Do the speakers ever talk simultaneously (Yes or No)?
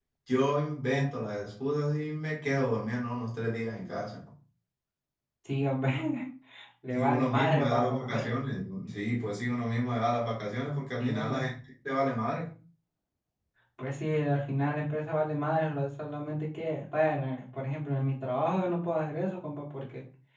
Yes